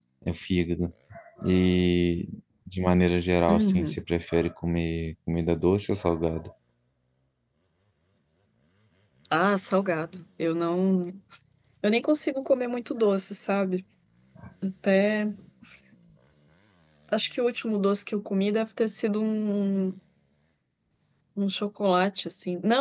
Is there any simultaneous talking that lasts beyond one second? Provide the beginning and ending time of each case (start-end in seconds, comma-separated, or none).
none